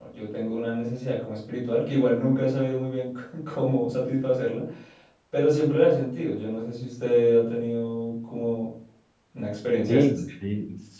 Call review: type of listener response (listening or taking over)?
taking over